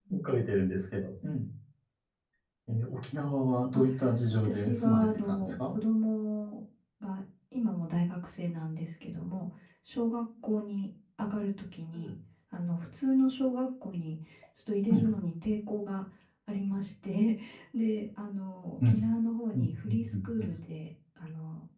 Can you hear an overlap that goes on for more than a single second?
Yes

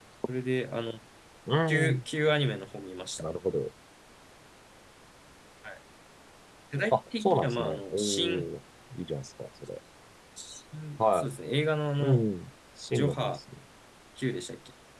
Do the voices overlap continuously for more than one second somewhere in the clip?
Yes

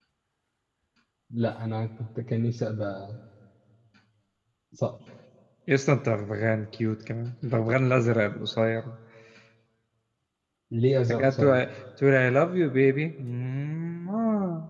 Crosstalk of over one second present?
No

